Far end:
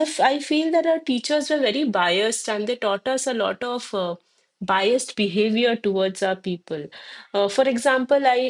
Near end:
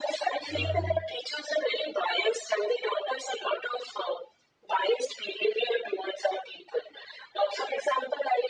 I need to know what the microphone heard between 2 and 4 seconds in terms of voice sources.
echo only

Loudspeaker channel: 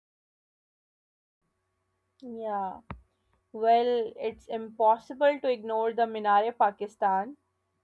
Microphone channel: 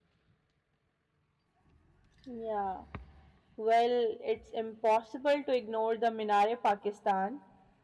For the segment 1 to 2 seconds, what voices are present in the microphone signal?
neither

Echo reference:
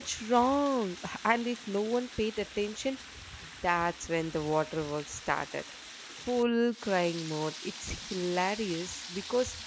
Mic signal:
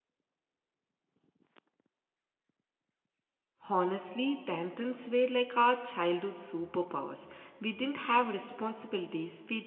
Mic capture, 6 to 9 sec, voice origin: user only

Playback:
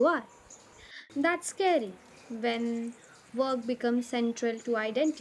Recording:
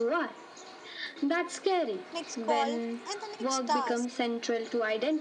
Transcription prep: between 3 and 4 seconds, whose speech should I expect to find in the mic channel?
both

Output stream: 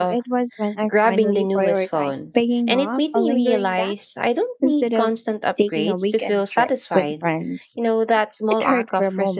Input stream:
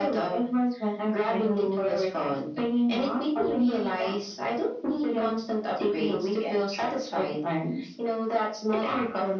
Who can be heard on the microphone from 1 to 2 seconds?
echo only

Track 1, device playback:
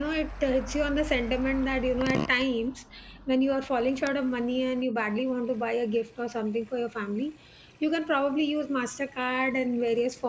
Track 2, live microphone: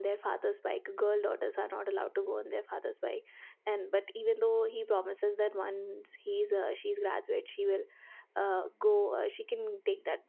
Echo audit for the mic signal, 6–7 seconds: user only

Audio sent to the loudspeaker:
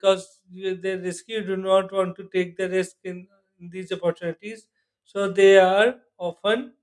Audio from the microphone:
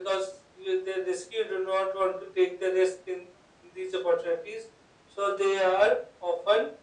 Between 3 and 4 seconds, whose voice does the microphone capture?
echo only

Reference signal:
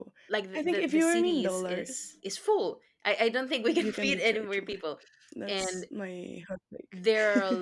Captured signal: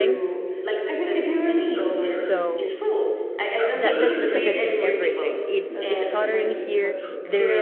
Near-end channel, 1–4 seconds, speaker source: both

